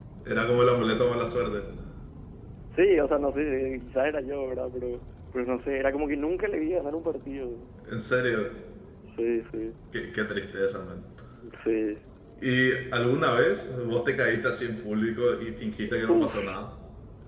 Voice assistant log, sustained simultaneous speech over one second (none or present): none